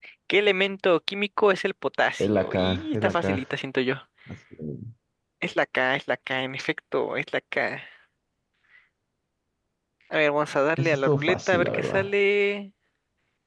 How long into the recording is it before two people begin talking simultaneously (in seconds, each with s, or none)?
2.2 s